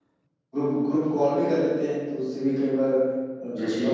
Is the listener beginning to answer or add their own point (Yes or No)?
Yes